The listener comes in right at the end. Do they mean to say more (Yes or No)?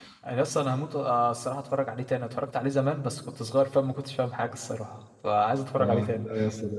Yes